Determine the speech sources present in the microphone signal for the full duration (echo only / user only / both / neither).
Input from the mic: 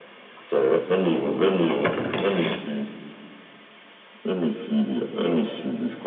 both